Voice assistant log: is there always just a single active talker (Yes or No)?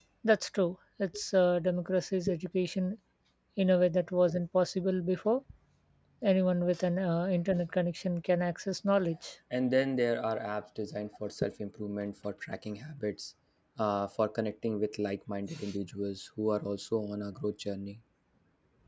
Yes